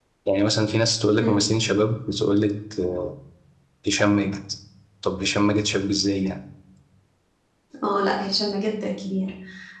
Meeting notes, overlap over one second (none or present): none